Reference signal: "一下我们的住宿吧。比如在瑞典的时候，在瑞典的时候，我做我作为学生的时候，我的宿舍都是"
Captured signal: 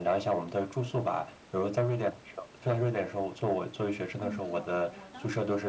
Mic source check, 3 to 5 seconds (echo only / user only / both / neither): both